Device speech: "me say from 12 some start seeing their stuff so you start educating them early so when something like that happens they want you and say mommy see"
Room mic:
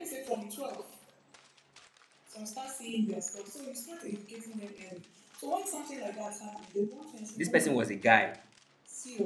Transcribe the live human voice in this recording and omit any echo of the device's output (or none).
this person was a guy.